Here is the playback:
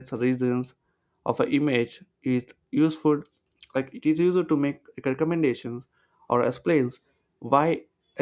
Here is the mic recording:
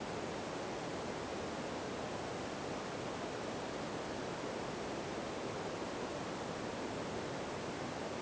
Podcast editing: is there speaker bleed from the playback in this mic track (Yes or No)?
No